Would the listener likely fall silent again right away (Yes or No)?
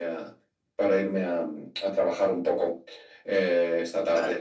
Yes